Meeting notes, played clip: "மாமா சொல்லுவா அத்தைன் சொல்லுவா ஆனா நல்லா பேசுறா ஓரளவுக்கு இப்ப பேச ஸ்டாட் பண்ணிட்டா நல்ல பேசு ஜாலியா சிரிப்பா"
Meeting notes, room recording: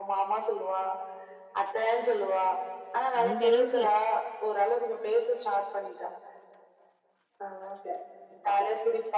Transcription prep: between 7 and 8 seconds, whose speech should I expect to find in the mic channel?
echo only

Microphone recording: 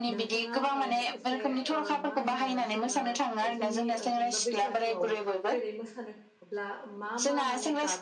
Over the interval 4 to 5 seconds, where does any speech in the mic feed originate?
both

